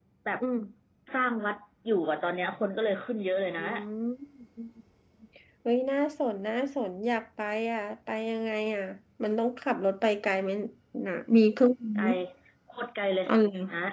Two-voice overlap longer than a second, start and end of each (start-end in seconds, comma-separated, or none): none